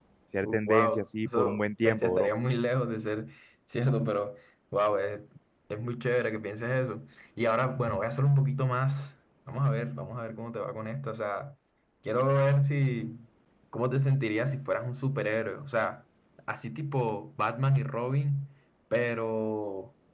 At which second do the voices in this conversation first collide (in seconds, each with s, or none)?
0.7 s